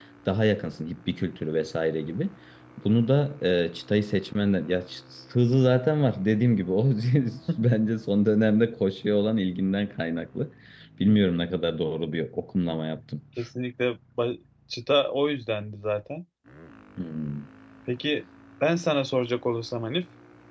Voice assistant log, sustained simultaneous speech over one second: none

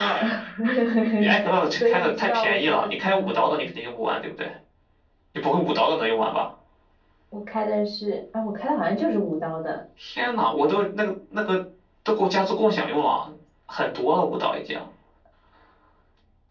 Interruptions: present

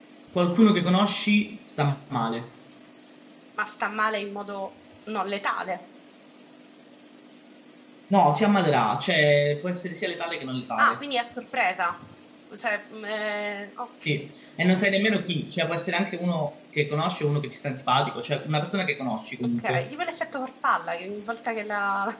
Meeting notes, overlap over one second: none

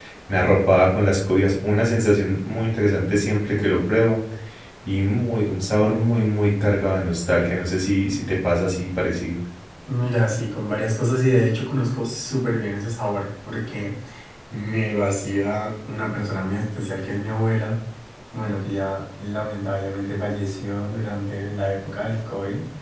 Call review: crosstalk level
none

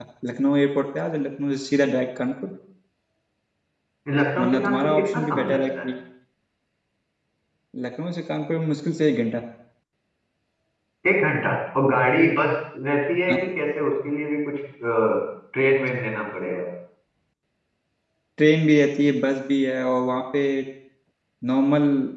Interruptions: present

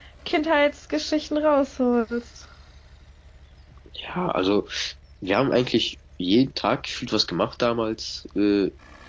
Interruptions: none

